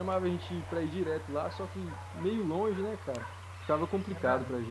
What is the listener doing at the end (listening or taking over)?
taking over